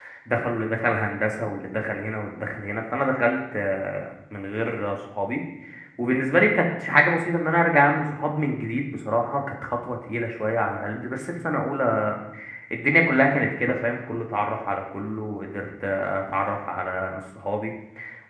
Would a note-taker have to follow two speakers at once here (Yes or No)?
No